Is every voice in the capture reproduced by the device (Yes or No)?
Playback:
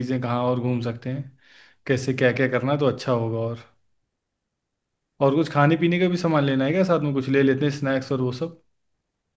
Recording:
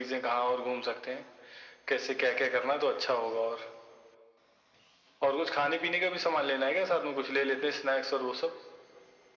Yes